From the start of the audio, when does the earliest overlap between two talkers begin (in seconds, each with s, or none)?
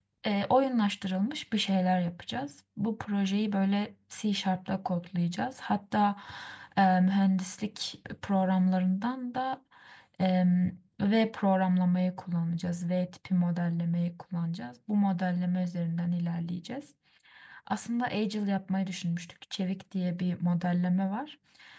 none